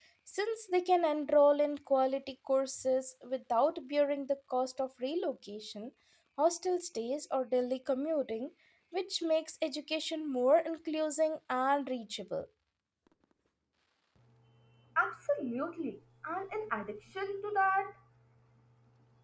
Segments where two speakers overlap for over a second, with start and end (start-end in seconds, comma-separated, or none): none